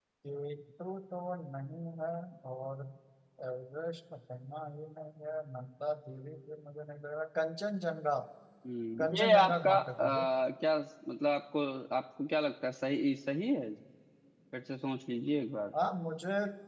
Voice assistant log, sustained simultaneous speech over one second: present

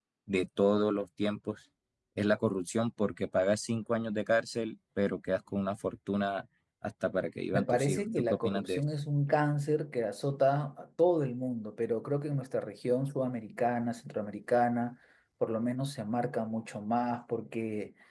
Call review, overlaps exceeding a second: present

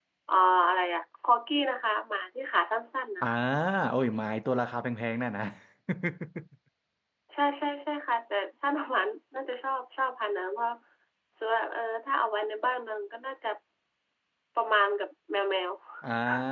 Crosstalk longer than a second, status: none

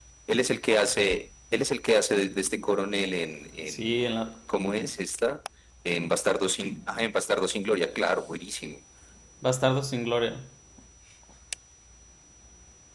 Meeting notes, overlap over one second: none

